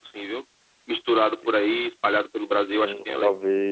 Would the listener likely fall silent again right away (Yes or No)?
No